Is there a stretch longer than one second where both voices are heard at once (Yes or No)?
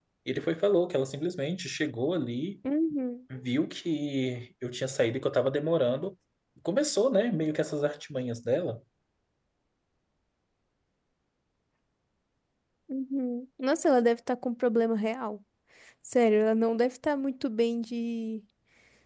No